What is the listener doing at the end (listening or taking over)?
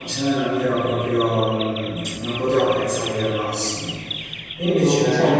listening